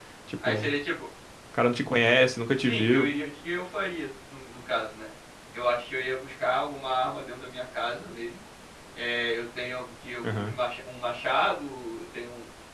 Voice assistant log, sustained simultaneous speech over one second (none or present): none